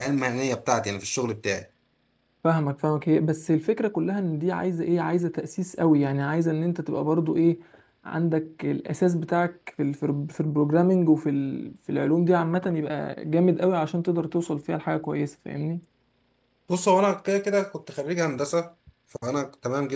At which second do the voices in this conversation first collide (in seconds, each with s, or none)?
none